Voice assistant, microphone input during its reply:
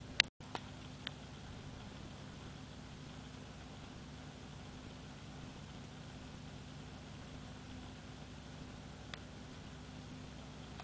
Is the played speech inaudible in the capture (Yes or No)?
Yes